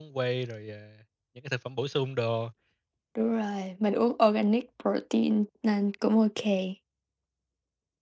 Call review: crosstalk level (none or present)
none